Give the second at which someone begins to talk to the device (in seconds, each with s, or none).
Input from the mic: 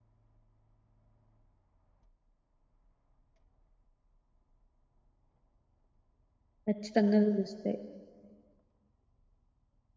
6.7 s